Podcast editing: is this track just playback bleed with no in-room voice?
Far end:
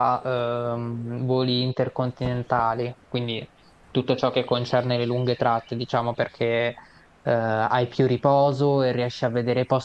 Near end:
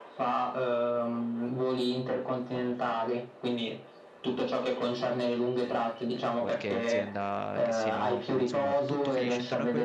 No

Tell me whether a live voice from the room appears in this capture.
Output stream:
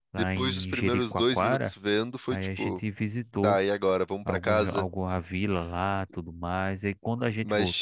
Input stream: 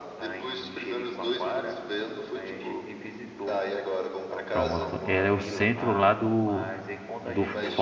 Yes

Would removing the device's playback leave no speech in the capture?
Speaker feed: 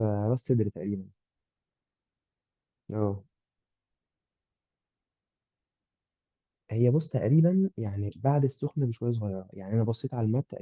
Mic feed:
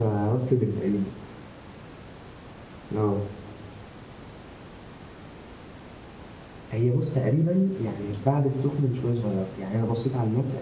Yes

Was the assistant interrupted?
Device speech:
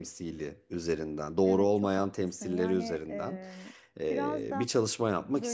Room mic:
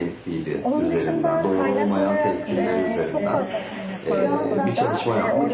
Yes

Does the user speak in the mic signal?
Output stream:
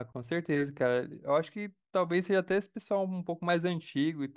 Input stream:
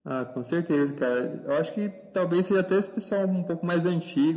No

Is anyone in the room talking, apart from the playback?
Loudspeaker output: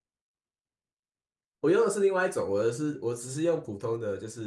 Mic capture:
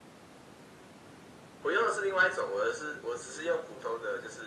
No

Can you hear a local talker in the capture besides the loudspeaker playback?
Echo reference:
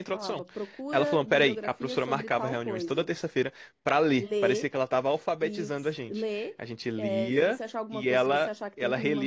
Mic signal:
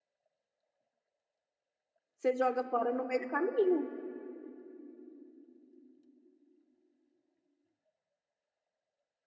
Yes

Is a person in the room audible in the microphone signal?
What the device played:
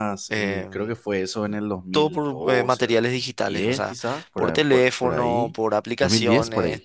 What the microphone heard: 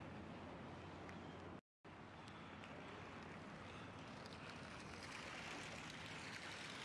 No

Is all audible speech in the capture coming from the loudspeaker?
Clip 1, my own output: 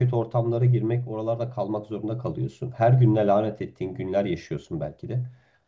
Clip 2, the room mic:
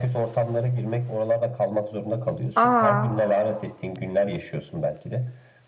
No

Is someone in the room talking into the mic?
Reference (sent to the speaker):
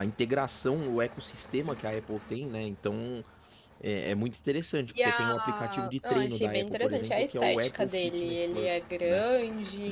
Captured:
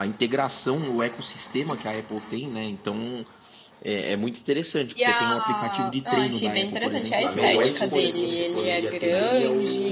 Yes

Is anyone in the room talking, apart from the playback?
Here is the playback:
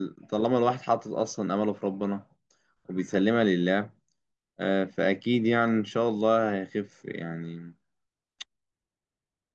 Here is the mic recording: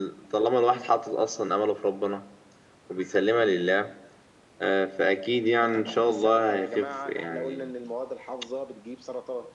Yes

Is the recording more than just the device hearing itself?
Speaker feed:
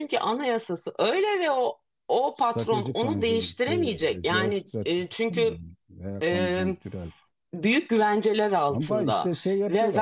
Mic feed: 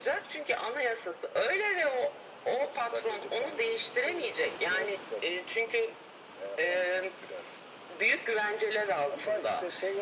No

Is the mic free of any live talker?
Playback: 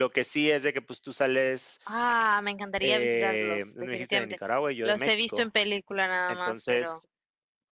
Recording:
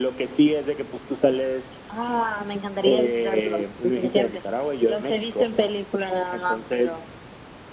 Yes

